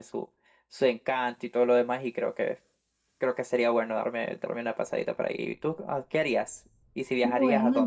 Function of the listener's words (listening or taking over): taking over